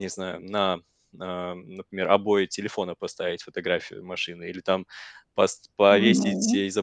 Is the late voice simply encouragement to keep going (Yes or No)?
Yes